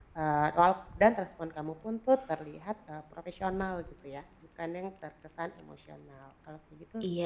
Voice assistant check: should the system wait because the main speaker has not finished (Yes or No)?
No